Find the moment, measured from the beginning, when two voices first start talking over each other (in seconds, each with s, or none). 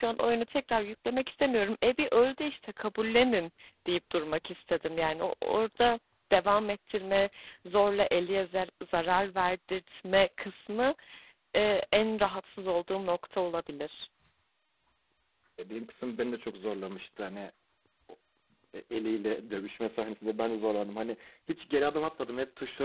none